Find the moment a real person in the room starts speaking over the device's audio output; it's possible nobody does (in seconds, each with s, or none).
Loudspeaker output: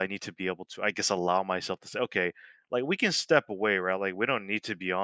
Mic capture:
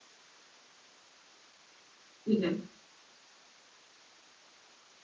2.2 s